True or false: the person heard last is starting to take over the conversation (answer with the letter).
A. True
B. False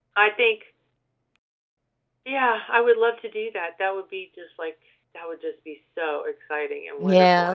A